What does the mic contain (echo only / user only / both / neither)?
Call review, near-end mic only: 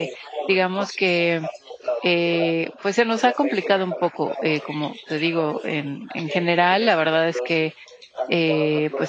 both